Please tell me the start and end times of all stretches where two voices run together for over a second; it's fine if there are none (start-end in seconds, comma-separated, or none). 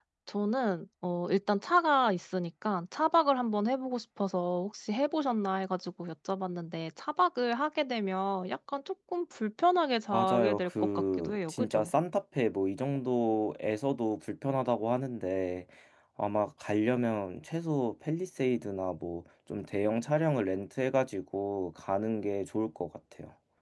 10.1-11.9